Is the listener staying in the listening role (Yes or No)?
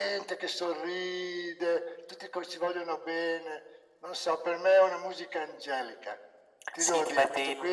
No